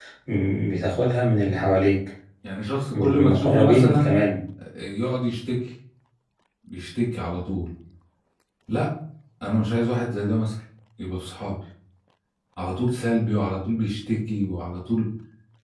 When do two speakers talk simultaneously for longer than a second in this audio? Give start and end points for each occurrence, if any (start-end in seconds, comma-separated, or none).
2.9-4.2